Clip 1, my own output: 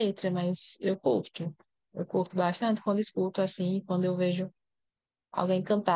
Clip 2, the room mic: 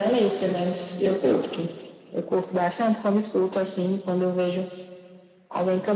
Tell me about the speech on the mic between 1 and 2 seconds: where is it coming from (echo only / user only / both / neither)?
echo only